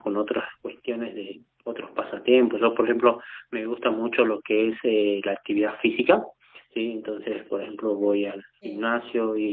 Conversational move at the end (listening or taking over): listening